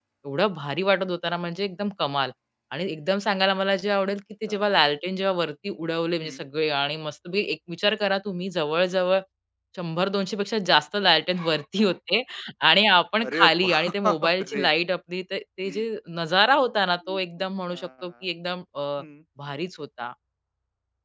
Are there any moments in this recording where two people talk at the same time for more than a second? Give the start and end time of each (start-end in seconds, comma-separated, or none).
13.2-14.7